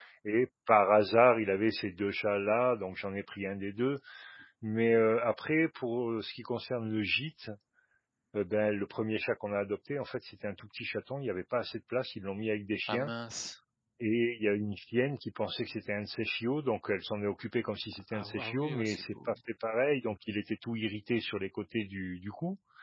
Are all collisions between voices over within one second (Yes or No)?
No